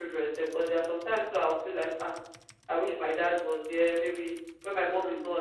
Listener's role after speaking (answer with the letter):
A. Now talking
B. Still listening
B